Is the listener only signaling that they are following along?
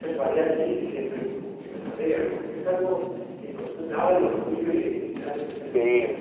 No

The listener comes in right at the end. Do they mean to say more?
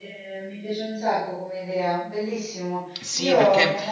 Yes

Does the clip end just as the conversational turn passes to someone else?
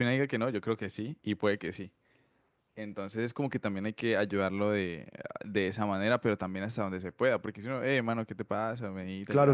Yes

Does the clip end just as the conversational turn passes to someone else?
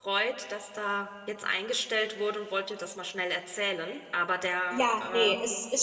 Yes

